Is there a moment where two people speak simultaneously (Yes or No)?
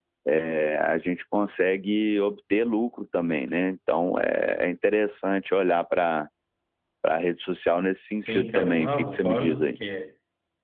Yes